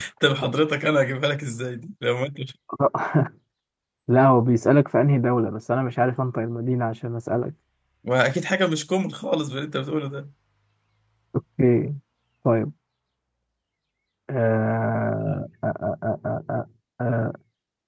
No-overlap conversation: Yes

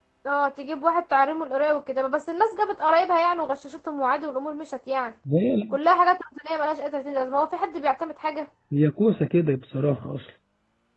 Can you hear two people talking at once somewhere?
No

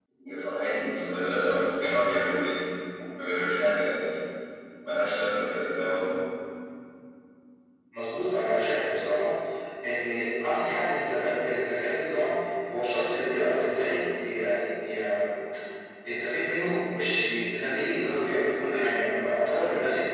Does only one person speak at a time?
Yes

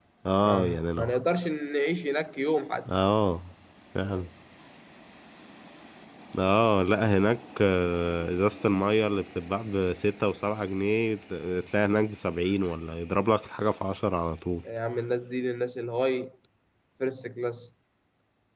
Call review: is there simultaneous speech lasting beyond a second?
No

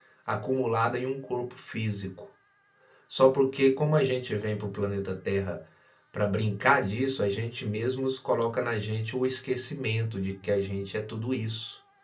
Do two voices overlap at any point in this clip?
No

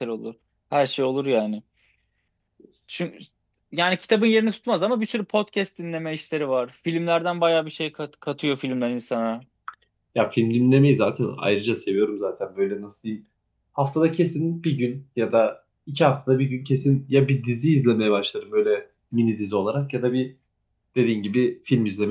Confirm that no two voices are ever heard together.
Yes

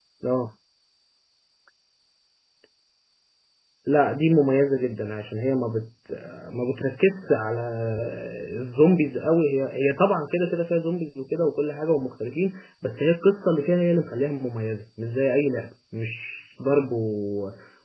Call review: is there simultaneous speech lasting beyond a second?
No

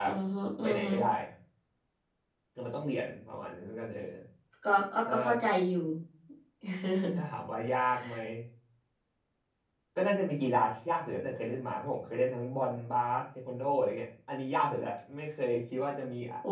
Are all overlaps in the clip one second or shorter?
Yes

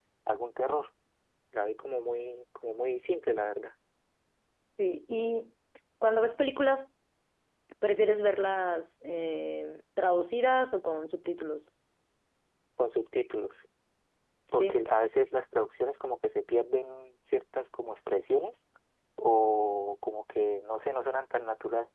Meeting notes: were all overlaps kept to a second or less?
Yes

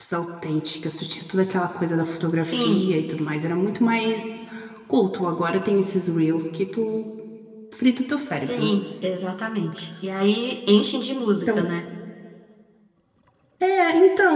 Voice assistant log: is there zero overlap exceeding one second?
Yes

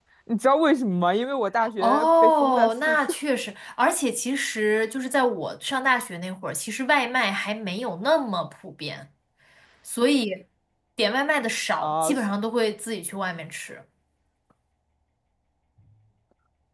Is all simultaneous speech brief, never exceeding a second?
No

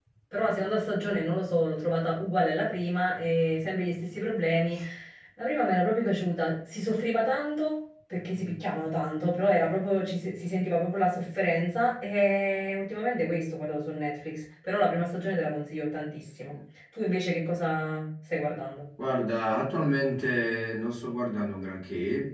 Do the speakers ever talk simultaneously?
No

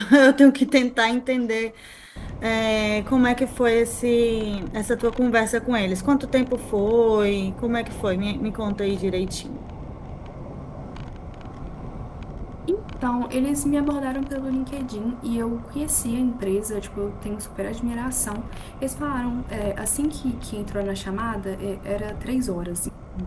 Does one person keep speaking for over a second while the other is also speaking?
No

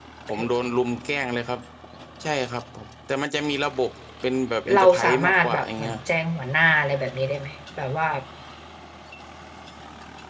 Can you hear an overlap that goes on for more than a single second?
Yes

